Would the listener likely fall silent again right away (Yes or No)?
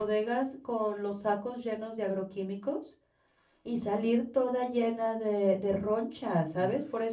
Yes